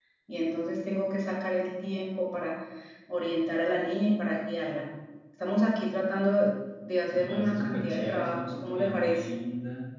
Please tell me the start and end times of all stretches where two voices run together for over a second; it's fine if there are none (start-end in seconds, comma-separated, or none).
7.1-9.3